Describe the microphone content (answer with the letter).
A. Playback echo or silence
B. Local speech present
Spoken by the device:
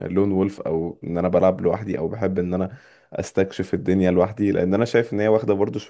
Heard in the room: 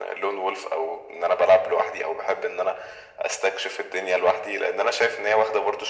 A